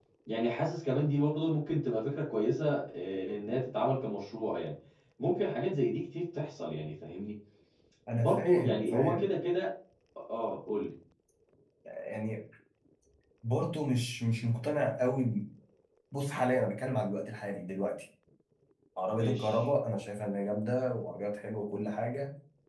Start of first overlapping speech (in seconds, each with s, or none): 8.2 s